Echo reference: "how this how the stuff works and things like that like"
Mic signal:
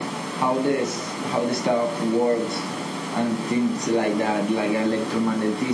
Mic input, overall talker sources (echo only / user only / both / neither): echo only